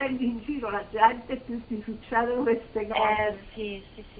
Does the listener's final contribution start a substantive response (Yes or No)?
Yes